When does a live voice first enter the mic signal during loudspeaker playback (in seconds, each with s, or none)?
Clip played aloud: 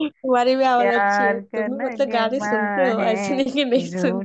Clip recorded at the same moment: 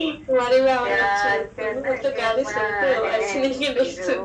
none